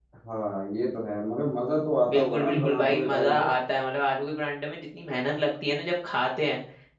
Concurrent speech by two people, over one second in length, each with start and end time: 2.1-3.5

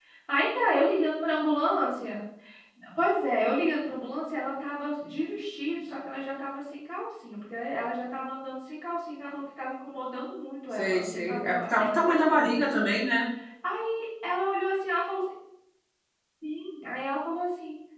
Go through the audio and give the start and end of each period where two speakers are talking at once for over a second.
10.7-12.7

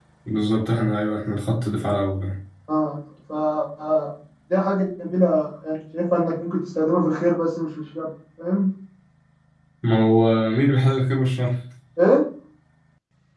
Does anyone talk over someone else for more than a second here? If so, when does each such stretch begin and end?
none

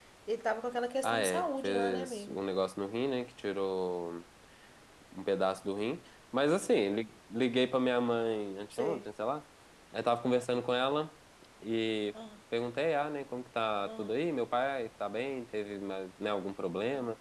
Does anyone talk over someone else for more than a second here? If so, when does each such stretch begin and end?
1.0-2.4

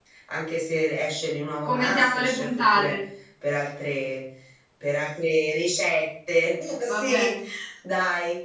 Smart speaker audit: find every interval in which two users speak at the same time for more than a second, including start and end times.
1.6-3.0

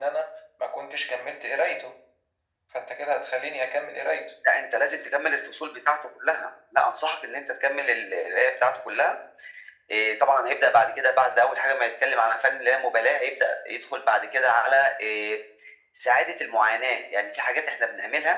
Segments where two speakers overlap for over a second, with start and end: none

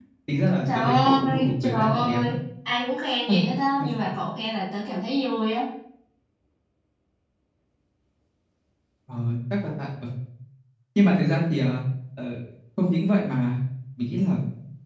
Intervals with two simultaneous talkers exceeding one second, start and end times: 0.7-2.3

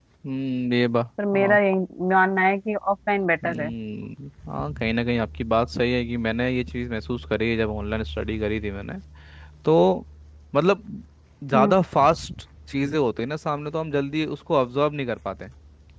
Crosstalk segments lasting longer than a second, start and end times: none

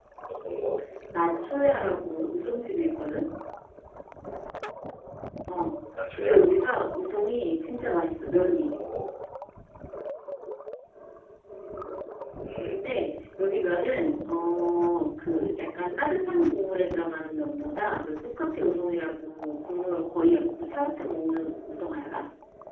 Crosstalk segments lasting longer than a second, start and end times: none

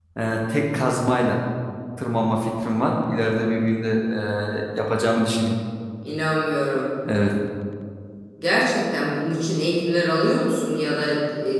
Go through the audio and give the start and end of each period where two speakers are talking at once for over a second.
none

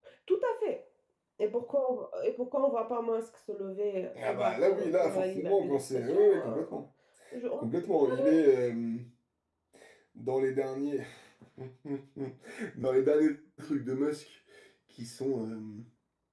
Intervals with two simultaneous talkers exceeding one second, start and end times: 4.2-6.6

